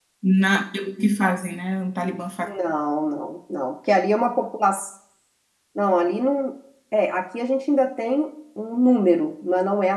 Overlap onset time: none

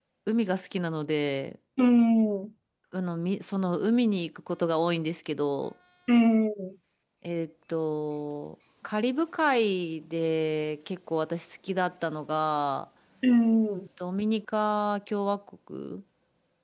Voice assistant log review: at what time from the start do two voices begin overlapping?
none

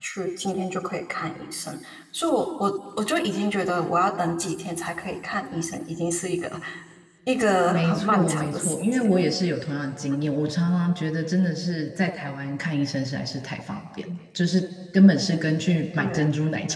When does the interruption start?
7.7 s

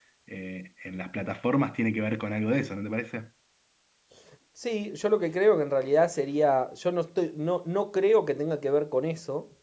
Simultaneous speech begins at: none

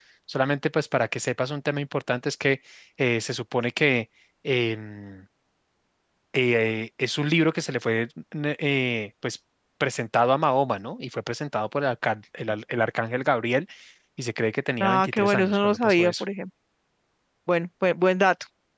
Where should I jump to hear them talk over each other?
14.8 s

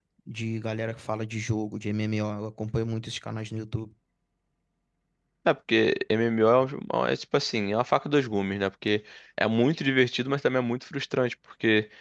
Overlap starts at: none

